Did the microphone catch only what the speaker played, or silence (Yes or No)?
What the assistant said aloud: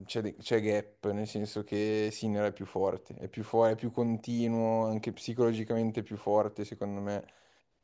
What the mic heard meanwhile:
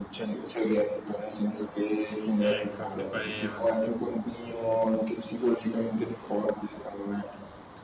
No